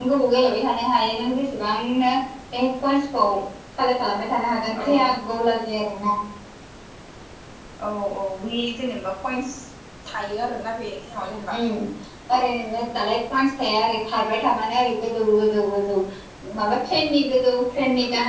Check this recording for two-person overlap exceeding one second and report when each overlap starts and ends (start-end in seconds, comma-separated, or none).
none